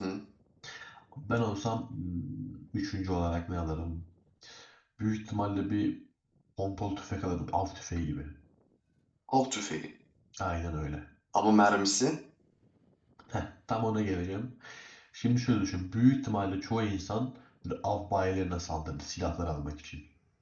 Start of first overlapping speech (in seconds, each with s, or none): none